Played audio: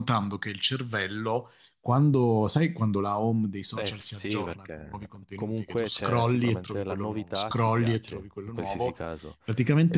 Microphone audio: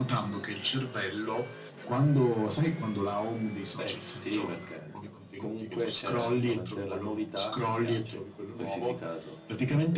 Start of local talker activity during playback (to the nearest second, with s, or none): none